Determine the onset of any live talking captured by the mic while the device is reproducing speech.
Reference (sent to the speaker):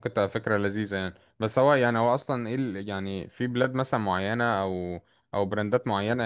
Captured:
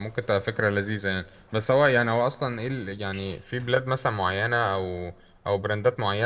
none

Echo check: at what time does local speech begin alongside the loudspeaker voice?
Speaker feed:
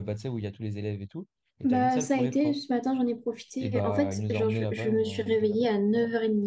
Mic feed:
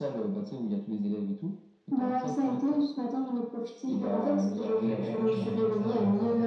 4.8 s

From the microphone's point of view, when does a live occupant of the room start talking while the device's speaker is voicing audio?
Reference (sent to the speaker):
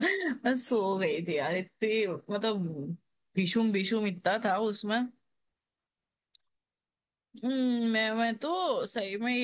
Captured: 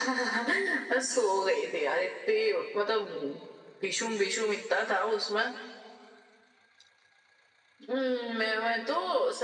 none

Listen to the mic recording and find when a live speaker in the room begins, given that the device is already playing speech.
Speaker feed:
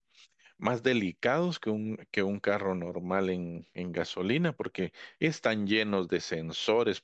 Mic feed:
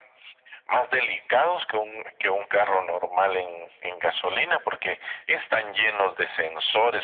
none

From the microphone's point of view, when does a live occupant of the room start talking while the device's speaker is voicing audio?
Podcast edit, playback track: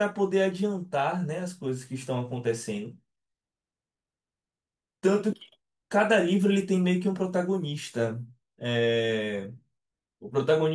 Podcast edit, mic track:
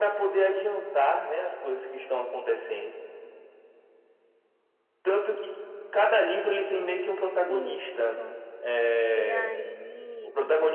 7.5 s

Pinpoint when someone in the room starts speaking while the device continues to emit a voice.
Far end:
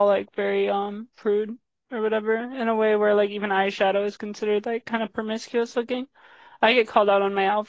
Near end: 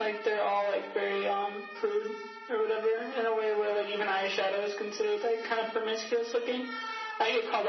none

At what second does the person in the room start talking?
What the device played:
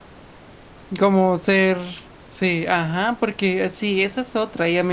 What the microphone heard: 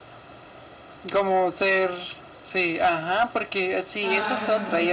4.0 s

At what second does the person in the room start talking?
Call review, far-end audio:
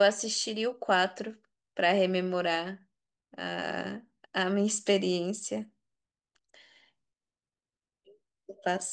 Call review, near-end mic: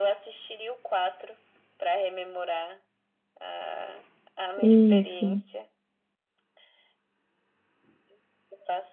4.6 s

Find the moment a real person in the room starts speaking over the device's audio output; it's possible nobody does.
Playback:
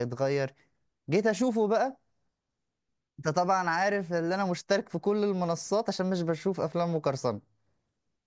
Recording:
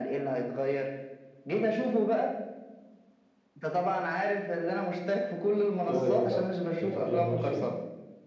5.9 s

